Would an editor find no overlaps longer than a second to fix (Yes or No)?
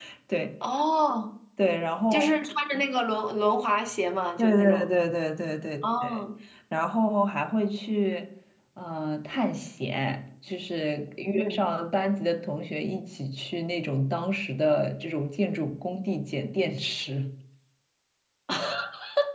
Yes